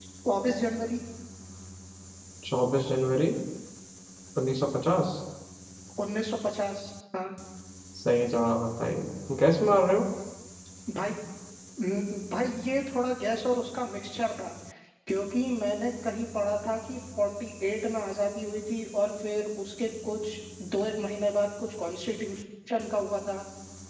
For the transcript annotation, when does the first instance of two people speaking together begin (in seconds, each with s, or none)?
none